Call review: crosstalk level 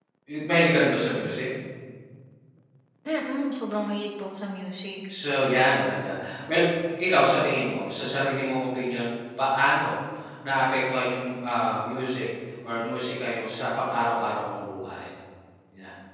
none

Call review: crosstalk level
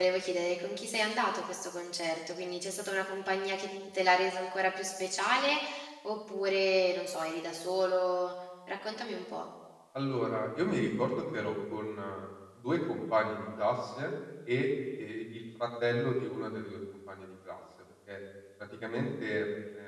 none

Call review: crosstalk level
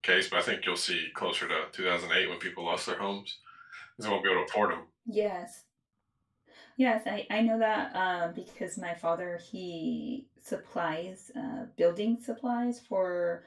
none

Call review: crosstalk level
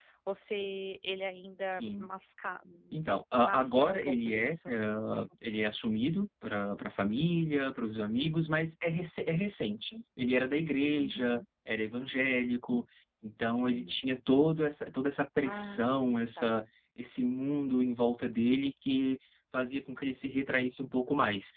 present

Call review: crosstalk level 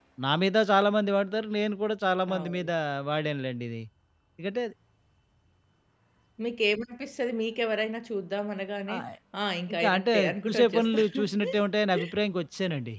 present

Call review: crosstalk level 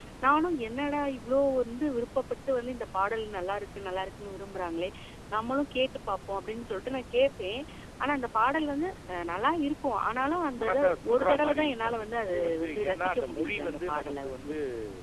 present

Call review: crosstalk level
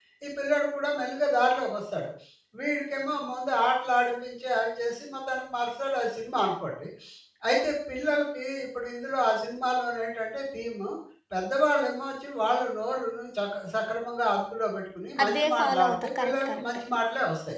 present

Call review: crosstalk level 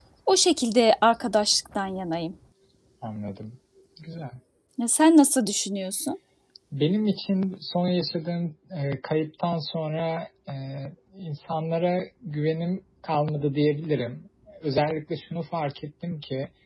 none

